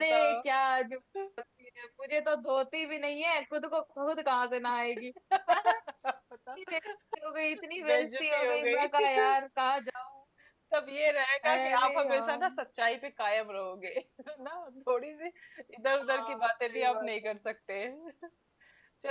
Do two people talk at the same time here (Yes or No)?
Yes